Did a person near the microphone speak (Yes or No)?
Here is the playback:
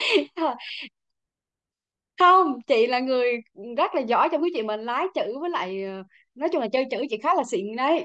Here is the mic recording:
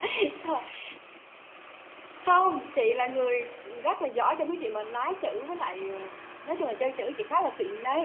No